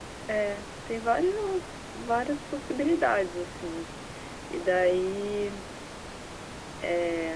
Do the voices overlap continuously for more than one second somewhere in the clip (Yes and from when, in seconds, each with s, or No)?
No